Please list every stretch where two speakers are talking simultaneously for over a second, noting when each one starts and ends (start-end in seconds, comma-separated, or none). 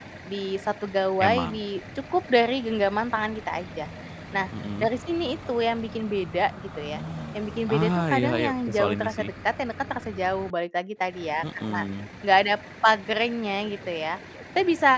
7.7-9.3